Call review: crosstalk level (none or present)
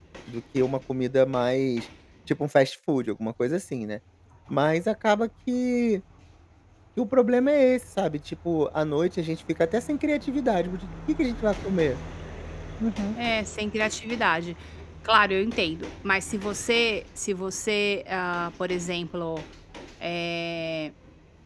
none